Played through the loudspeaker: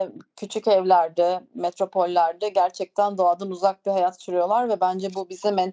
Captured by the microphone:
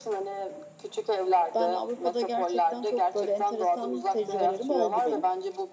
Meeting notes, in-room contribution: present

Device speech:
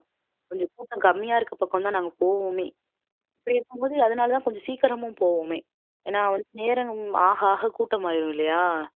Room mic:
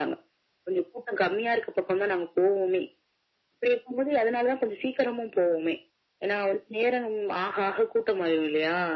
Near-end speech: none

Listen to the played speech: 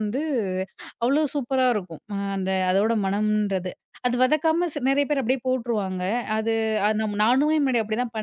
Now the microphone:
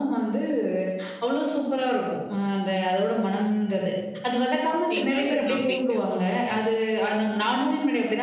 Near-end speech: present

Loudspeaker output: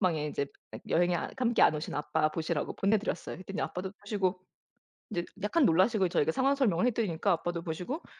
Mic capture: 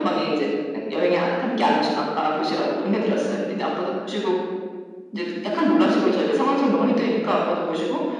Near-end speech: none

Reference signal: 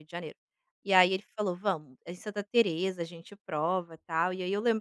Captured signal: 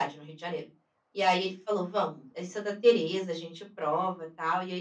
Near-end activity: none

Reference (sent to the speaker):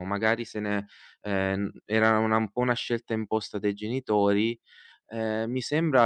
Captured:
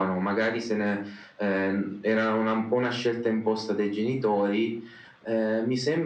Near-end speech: none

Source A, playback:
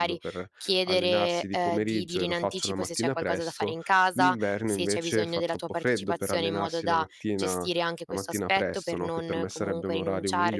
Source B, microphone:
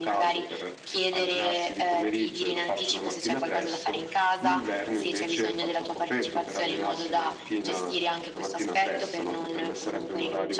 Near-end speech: none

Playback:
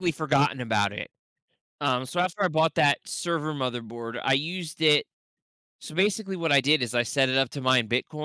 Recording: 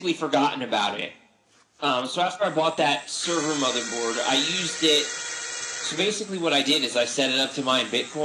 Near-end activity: none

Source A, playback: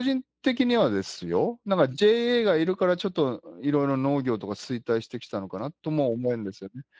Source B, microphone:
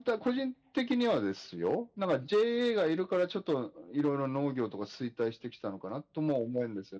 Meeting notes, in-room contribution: none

